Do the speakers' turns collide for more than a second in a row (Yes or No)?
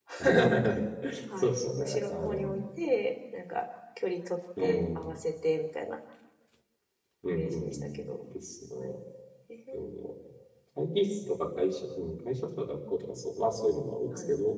Yes